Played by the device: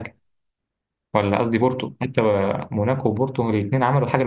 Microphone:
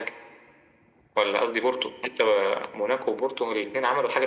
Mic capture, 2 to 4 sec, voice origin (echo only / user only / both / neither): echo only